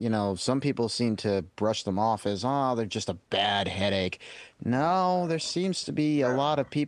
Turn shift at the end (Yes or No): No